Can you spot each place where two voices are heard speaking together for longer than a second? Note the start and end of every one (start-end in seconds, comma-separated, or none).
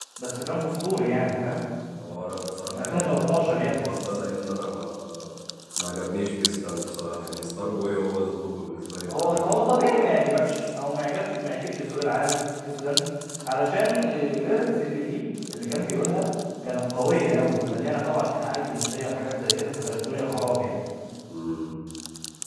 2.6-3.9